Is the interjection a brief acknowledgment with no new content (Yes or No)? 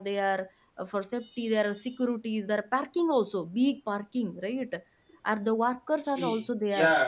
No